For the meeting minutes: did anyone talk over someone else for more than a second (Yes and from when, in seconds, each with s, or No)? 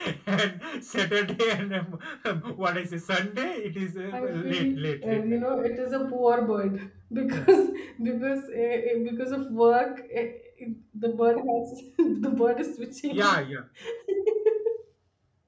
Yes, from 4.1 s